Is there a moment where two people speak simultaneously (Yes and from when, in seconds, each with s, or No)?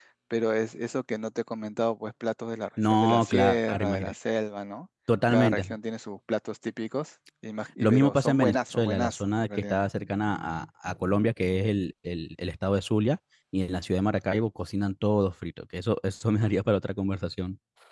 Yes, from 2.8 s